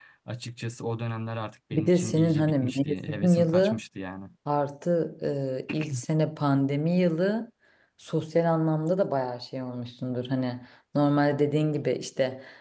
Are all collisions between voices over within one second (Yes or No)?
No